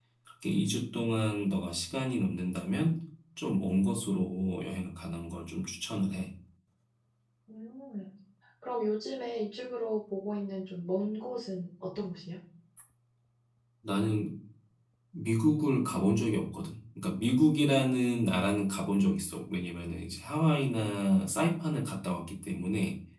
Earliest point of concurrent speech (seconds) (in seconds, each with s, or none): none